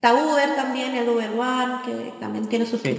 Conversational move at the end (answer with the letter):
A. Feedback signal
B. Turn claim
B